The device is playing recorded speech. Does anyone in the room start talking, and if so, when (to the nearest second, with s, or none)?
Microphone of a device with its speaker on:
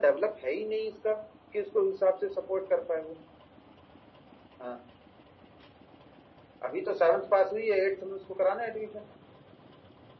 none